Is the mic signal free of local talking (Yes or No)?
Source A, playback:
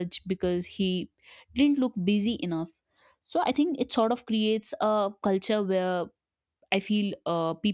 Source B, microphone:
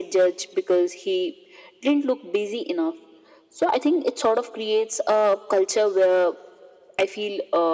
Yes